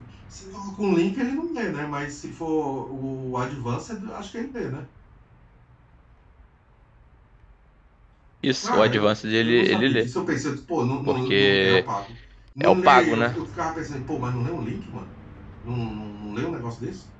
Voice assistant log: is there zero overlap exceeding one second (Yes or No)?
No